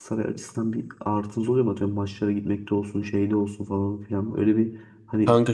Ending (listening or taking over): listening